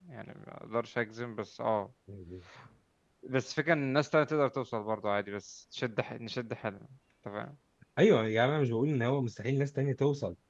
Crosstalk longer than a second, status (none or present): none